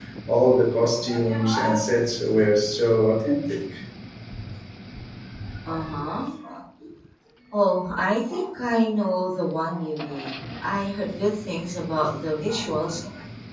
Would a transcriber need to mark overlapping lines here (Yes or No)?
No